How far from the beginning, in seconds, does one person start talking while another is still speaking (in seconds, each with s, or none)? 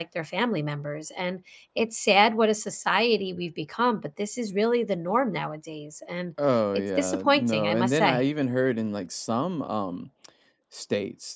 6.7 s